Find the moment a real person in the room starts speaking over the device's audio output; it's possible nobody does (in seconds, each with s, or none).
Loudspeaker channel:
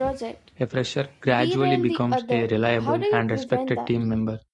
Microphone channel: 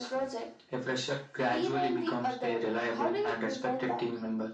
none